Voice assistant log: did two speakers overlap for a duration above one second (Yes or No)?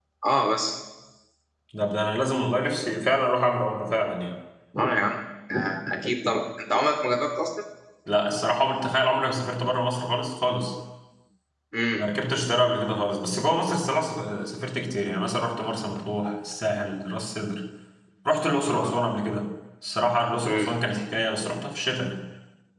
No